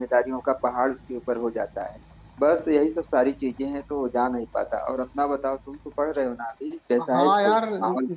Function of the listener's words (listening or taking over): taking over